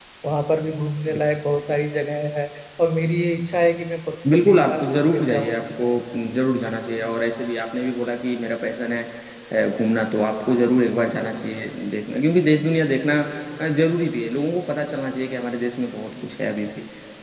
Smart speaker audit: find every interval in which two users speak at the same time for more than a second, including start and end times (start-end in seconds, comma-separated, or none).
4.3-5.5